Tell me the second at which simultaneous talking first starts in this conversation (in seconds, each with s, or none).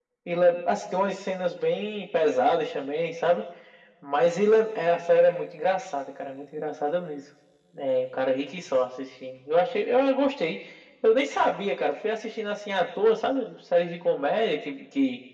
none